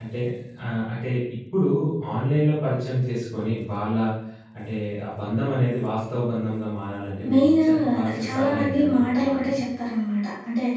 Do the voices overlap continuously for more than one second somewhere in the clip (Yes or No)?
Yes